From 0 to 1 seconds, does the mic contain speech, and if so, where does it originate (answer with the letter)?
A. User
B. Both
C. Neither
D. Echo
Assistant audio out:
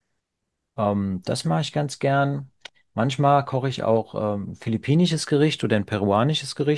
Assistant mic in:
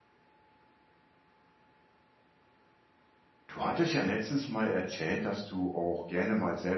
C